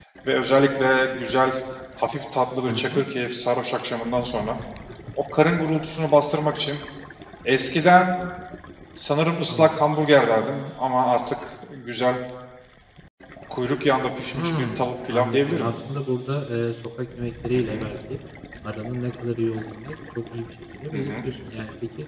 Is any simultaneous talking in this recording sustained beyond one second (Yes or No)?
Yes